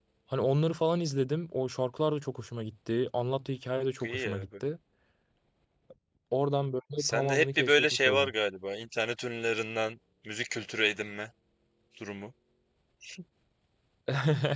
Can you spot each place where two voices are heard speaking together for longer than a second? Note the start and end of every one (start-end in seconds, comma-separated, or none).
7.0-8.3